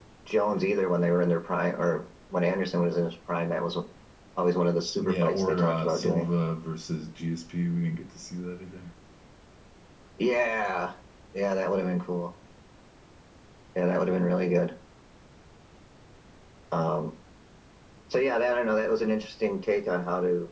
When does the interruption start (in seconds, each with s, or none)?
5.0 s